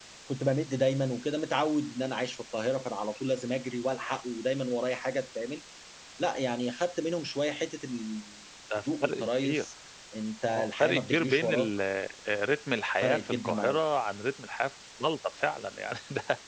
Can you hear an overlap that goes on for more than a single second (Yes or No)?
Yes